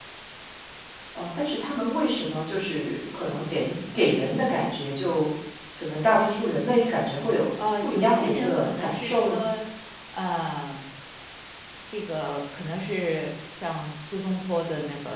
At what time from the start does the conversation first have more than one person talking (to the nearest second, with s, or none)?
8 s